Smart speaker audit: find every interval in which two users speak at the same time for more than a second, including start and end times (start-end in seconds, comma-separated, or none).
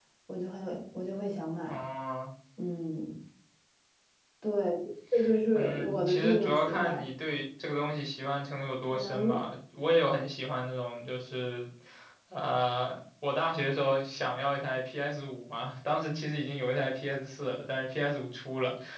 5.5-7.0